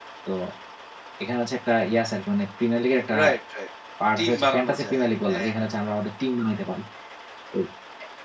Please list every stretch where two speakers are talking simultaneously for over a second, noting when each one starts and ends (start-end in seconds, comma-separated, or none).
4.2-5.5